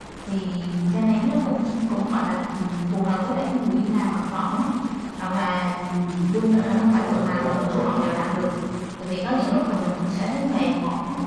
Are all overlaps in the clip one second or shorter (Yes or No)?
No